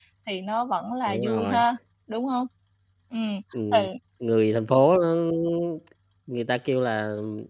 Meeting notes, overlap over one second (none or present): none